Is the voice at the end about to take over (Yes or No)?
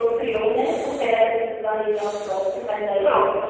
No